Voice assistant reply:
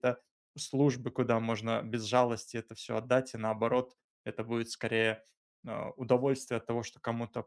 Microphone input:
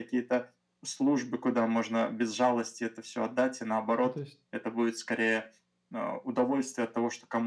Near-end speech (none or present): present